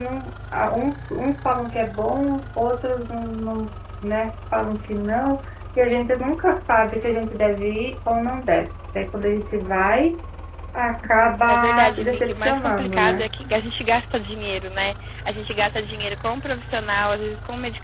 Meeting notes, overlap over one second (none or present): present